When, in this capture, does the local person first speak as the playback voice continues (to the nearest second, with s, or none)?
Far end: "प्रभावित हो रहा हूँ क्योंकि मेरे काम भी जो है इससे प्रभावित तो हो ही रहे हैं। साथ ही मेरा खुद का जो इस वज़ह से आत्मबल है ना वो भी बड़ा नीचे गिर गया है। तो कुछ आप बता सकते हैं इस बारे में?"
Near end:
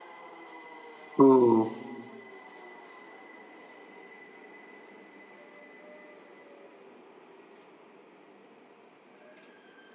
1 s